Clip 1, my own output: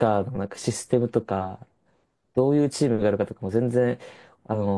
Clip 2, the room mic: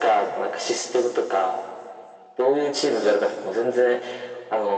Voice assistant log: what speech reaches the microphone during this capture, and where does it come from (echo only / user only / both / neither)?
echo only